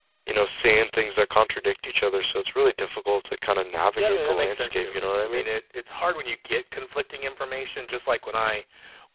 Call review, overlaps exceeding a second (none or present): present